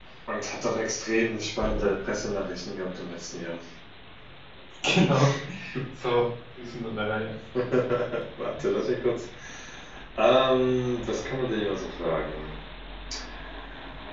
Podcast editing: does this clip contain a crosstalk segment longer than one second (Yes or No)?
No